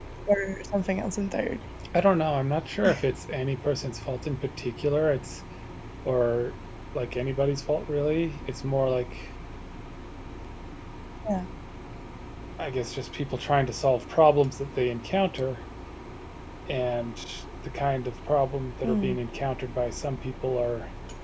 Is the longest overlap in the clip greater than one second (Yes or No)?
No